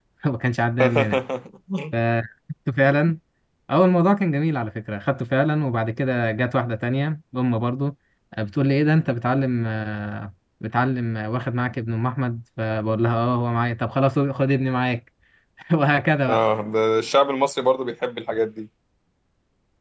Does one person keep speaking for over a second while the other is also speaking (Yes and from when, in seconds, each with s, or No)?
No